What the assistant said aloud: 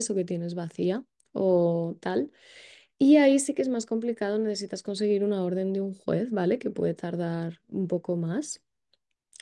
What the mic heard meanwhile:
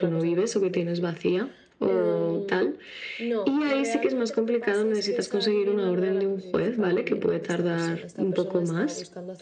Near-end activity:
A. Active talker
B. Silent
A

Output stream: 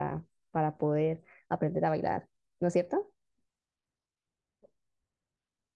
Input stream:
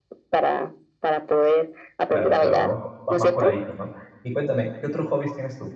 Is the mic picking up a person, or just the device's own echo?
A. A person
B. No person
A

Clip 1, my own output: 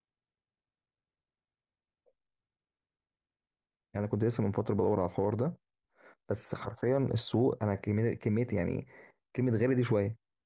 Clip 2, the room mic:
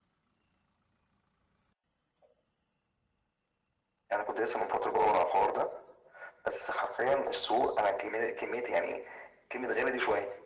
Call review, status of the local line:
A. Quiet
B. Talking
A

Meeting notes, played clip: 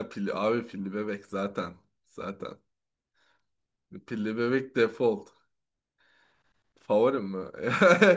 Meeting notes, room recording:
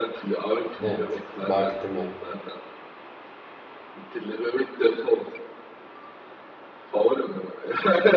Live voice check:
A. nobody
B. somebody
B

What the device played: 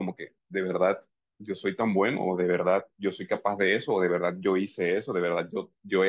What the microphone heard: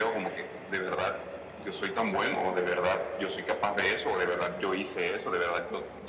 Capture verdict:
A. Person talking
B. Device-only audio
B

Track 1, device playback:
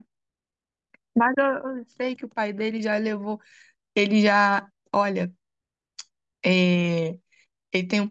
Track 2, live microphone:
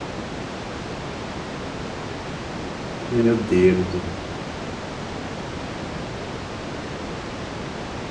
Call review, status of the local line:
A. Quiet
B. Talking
B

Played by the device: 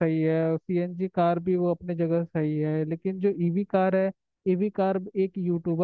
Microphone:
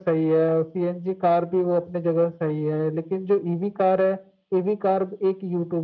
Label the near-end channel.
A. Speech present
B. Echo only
B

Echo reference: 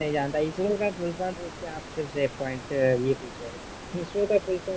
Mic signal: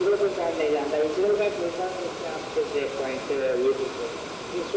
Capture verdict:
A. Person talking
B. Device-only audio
B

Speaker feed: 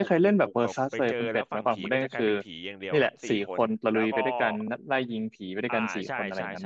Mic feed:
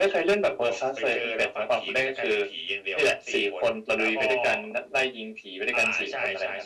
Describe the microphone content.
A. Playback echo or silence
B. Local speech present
A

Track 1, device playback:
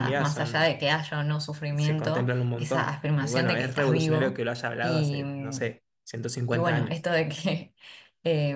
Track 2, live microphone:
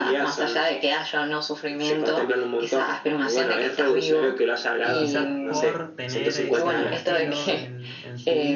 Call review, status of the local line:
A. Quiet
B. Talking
B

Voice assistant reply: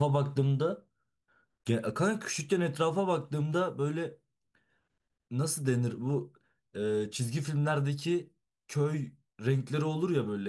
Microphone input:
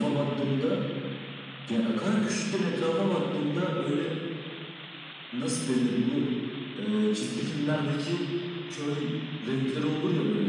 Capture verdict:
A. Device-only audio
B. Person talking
A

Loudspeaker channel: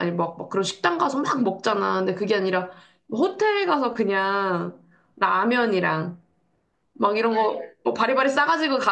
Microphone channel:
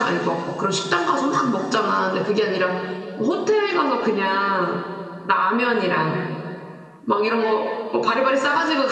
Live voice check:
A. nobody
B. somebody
A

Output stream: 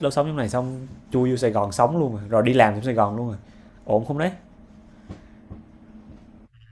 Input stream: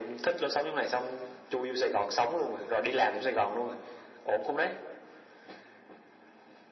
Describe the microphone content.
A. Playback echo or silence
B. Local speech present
A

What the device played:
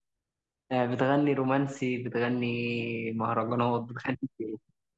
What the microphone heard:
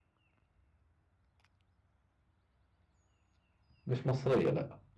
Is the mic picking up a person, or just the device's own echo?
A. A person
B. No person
A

